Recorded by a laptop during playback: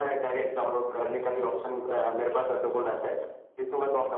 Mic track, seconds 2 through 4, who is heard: both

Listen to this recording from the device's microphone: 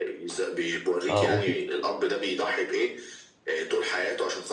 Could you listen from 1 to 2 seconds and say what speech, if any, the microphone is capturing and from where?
both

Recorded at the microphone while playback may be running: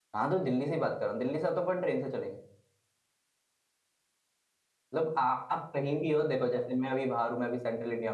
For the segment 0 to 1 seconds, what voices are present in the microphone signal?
user only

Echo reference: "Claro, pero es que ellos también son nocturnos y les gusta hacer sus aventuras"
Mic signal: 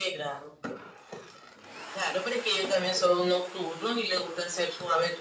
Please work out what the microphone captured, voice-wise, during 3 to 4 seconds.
echo only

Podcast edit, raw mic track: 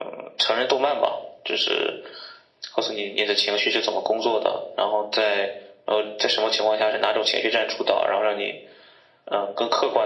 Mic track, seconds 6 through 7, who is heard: echo only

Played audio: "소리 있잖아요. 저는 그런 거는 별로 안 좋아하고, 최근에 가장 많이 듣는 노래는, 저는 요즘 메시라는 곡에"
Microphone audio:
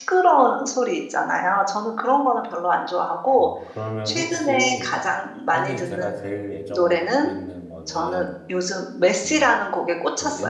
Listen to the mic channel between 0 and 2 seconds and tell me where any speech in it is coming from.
echo only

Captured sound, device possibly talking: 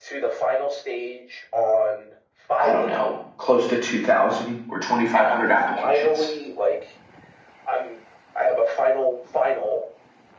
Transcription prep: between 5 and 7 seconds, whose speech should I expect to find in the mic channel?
both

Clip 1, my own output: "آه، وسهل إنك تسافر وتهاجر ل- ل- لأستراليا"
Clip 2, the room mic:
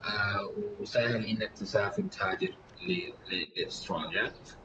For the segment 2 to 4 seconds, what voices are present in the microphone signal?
echo only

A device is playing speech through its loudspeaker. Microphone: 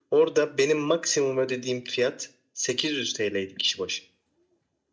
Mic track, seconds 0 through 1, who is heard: echo only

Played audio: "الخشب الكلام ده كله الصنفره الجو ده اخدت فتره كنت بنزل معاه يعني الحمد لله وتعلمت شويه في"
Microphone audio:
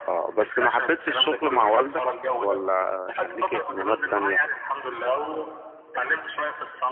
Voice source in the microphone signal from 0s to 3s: both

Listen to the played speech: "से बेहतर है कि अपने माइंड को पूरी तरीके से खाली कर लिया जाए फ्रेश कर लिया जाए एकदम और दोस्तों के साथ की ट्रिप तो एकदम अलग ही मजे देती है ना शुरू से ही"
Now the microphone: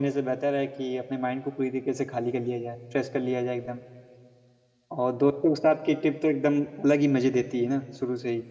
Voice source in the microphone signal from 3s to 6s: echo only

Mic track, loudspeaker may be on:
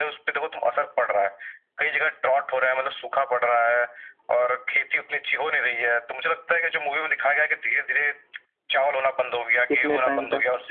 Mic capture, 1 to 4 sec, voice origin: echo only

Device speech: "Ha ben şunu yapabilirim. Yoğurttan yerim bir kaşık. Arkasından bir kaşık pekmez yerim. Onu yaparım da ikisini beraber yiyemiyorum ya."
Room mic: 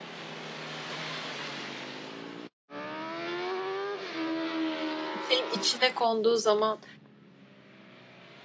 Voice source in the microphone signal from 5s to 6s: user only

